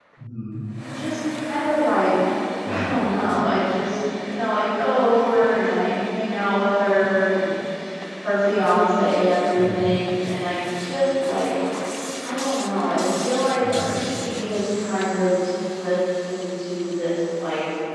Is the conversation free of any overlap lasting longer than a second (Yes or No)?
Yes